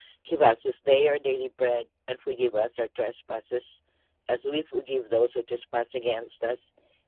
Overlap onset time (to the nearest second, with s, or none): none